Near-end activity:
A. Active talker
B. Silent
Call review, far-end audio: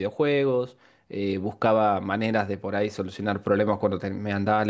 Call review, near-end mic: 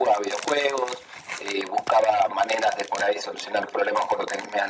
B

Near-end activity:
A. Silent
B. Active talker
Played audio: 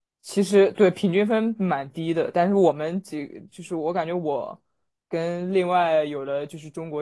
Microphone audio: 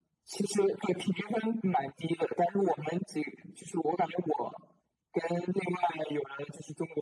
A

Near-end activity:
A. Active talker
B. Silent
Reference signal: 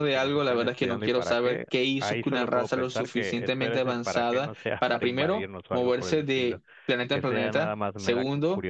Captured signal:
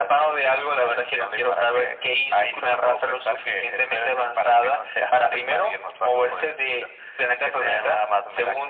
B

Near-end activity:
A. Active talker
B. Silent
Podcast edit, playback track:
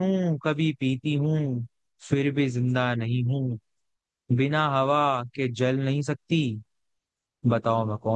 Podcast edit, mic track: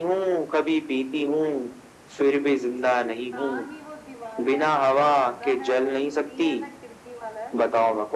A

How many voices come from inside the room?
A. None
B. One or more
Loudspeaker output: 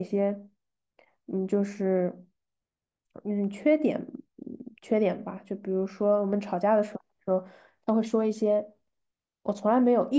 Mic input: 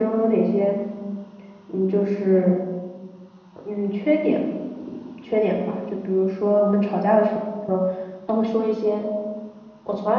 A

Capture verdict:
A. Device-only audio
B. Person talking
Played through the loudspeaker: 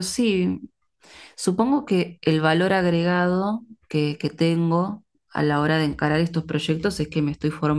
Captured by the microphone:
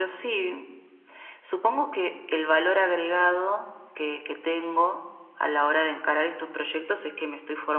A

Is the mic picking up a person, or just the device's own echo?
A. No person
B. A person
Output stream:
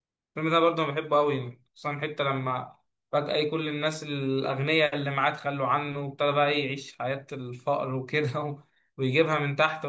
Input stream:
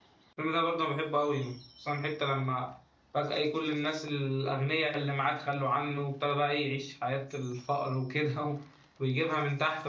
A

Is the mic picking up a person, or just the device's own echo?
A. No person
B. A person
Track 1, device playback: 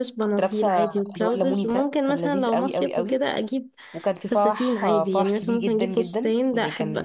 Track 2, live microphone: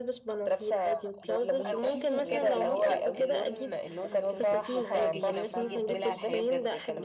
B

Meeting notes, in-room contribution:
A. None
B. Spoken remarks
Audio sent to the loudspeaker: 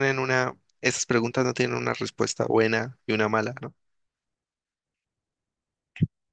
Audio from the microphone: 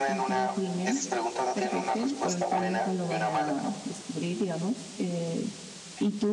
B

